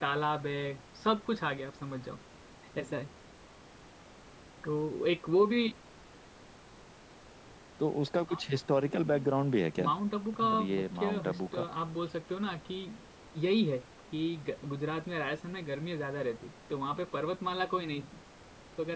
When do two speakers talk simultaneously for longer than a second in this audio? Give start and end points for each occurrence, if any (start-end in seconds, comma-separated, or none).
10.4-11.6